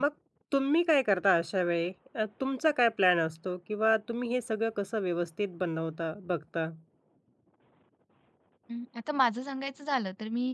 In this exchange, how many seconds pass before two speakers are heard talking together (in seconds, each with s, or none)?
none